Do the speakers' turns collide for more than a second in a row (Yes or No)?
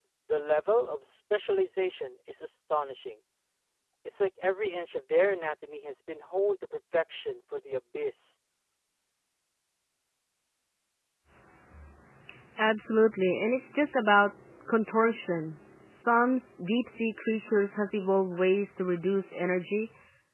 No